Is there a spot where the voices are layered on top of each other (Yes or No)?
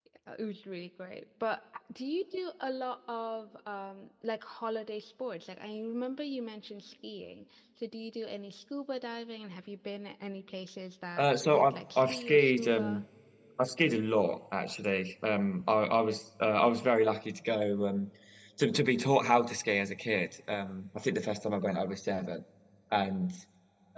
Yes